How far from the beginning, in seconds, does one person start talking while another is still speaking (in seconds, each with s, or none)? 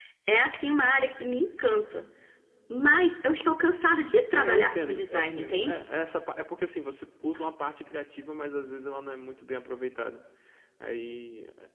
4.3 s